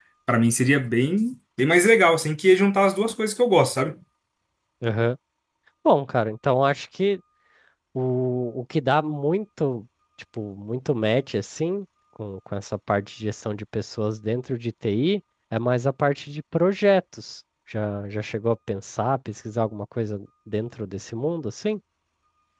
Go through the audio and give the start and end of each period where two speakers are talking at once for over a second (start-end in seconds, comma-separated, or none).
none